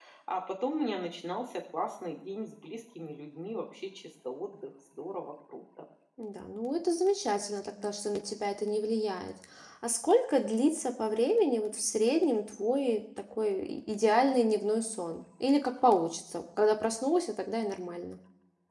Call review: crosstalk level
none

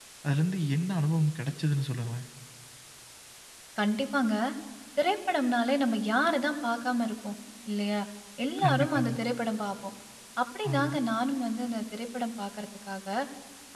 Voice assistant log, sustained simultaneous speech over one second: none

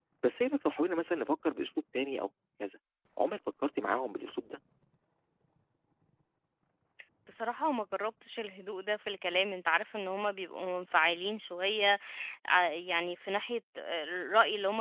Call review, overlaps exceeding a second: none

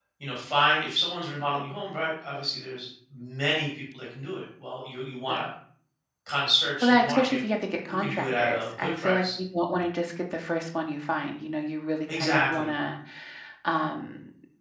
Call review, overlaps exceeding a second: present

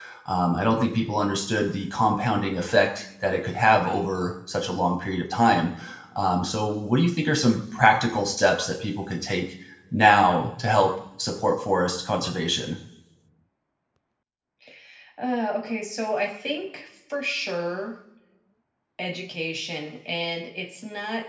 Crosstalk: none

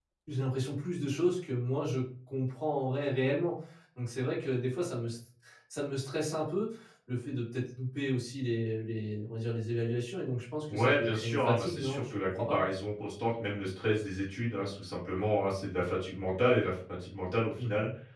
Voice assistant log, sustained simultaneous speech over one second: present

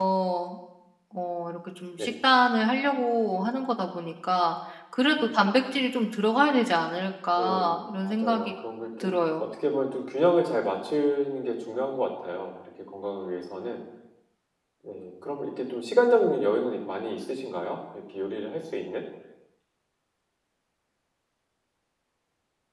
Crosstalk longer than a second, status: present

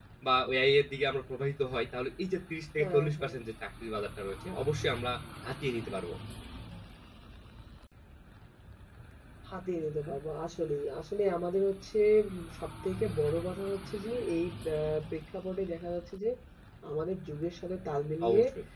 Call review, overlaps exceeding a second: none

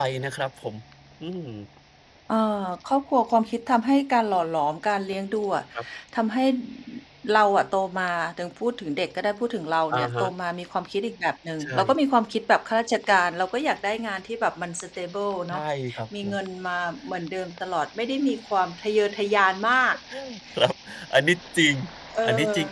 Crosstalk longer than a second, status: none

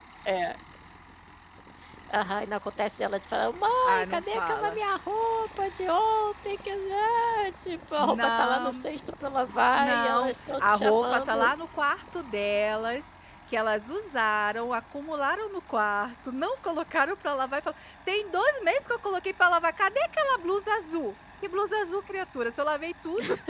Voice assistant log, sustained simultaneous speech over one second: present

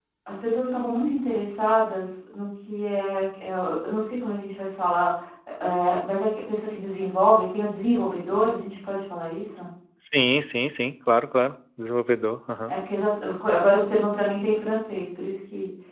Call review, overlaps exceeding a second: none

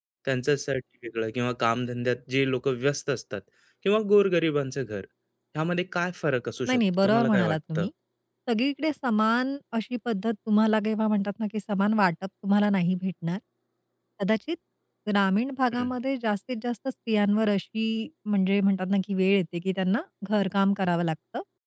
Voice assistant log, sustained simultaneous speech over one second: present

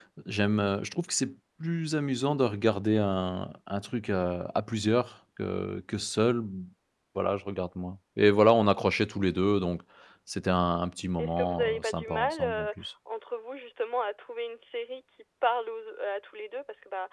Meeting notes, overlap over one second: present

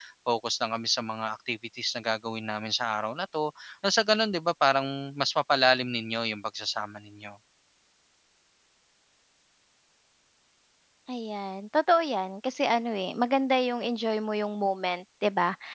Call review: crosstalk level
none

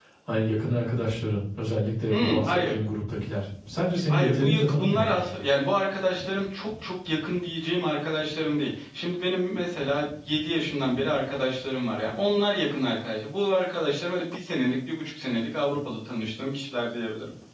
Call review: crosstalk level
present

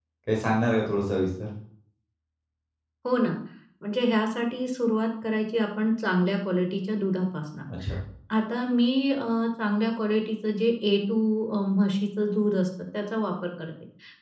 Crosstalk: none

